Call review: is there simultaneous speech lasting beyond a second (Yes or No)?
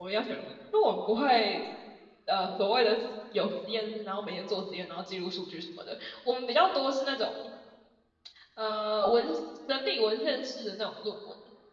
No